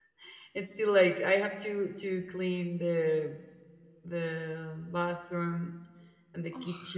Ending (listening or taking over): listening